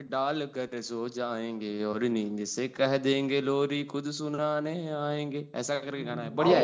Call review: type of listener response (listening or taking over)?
taking over